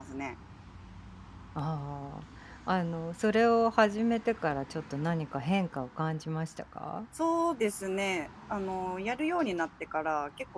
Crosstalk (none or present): none